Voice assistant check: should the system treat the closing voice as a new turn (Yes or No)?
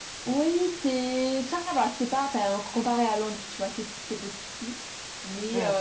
No